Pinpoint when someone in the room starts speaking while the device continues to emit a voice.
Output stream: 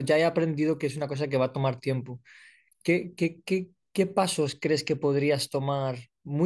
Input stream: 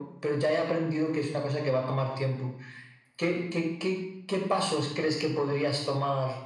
none

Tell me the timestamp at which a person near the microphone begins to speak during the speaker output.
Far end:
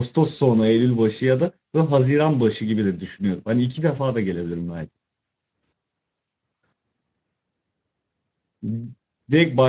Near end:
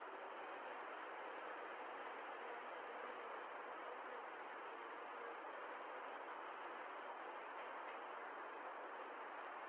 none

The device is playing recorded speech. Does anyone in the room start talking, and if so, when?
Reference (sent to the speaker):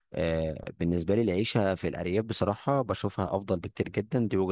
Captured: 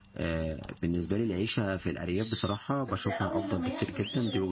2.9 s

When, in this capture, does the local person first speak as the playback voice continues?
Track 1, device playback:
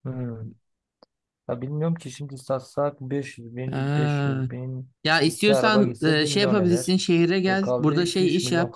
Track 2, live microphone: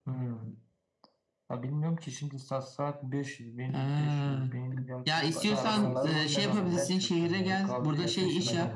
4.1 s

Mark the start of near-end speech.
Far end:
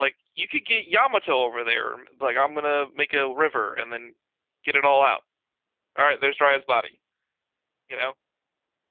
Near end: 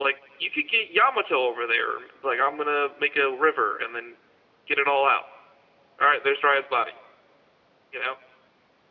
none

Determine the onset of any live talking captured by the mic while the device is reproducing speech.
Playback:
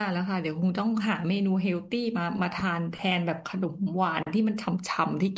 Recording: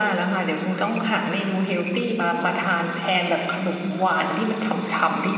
none

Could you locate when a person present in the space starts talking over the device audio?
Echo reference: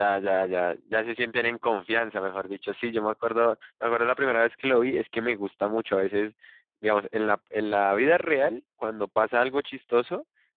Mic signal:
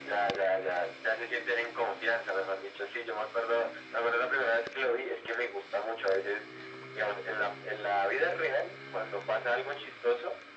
none

